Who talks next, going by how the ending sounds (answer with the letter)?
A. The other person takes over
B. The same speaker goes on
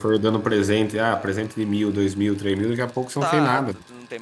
A